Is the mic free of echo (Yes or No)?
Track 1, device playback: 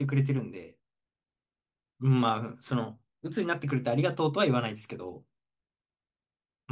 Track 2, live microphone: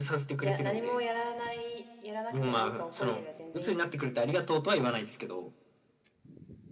No